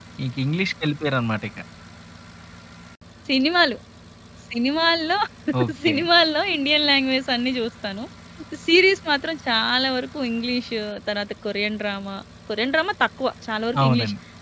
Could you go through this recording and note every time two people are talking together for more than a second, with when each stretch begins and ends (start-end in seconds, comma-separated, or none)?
none